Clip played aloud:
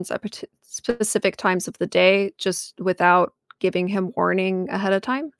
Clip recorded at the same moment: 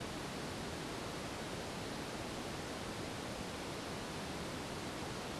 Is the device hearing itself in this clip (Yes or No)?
No